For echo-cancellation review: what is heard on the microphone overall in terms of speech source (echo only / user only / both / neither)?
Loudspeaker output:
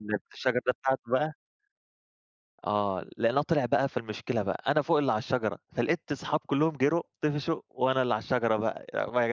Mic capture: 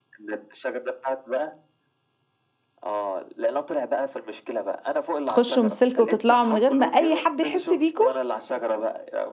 both